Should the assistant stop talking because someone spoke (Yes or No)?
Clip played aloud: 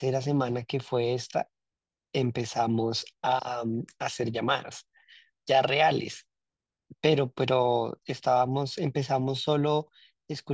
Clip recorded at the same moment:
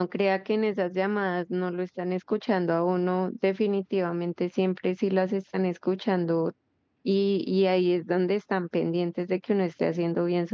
Yes